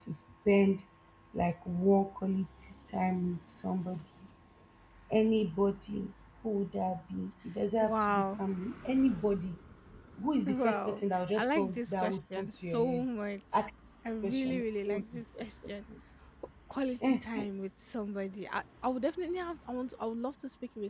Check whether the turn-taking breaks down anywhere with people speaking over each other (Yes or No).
Yes